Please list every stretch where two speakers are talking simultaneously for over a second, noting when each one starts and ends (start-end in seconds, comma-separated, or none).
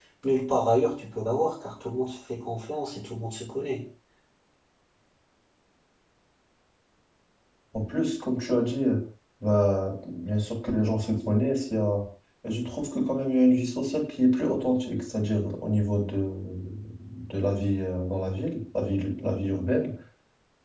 none